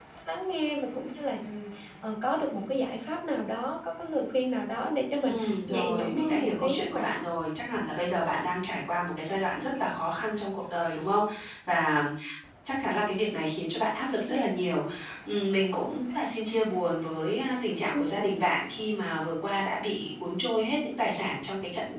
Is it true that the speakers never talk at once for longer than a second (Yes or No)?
No